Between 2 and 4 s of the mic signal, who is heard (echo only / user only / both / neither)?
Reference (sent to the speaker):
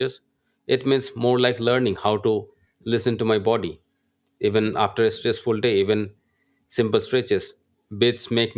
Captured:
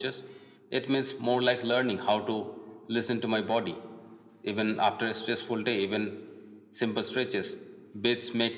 echo only